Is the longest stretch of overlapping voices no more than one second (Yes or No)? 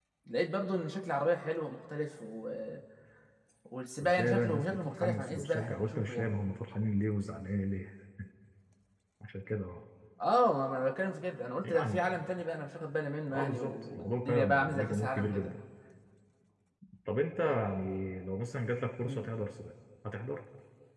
No